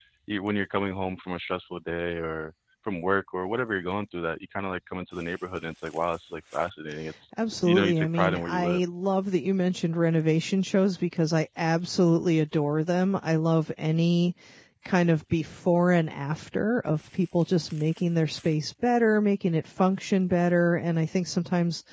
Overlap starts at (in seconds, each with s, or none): 7.6 s